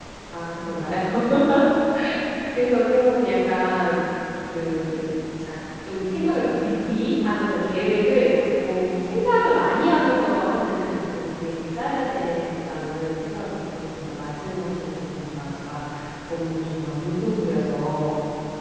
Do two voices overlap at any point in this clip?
No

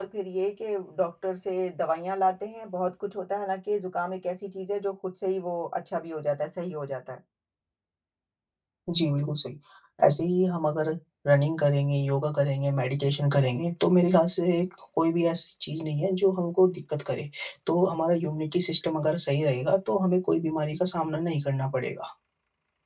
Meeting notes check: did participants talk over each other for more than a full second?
No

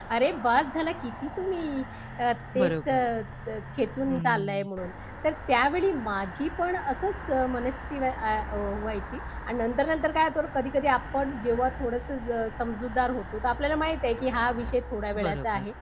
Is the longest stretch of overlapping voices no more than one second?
Yes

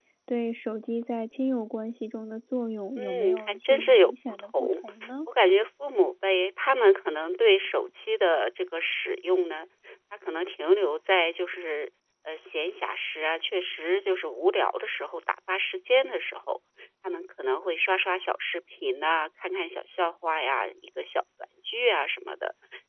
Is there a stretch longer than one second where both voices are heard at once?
Yes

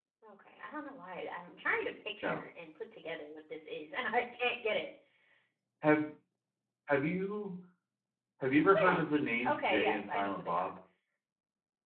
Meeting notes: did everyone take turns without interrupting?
No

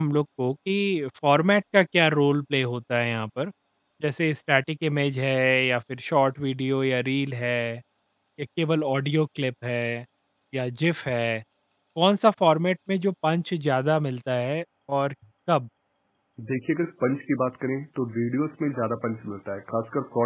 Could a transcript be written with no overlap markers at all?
Yes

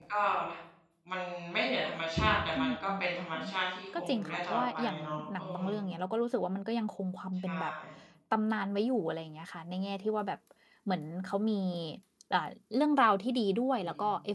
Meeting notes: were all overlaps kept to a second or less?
No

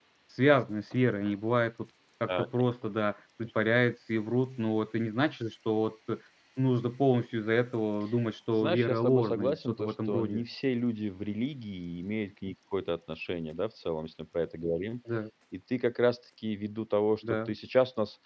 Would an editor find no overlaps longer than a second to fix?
No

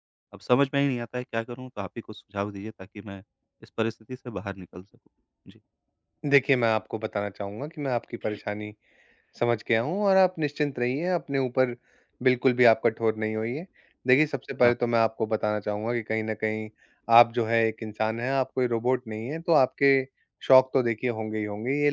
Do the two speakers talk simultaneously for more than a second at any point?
No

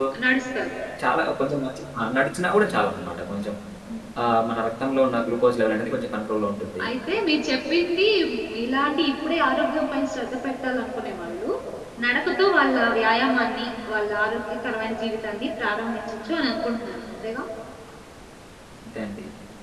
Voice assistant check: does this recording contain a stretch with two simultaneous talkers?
No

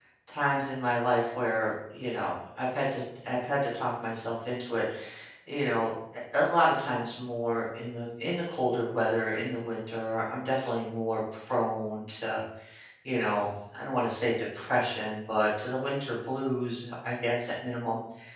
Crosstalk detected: No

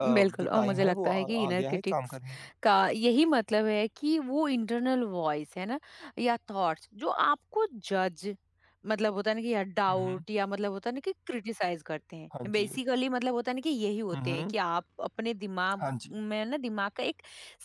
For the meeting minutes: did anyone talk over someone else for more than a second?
Yes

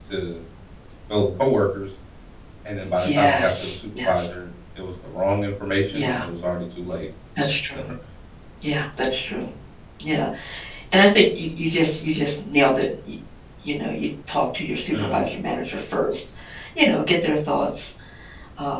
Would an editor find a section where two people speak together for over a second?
Yes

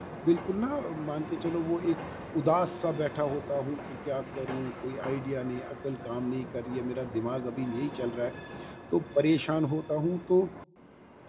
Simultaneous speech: No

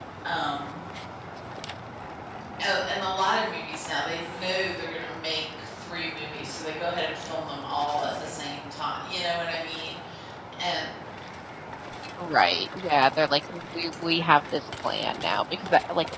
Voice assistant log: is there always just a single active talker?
Yes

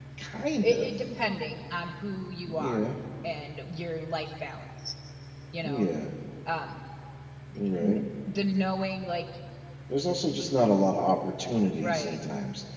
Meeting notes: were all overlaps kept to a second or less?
Yes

